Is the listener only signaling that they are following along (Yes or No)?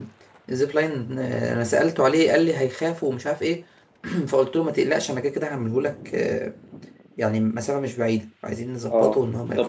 No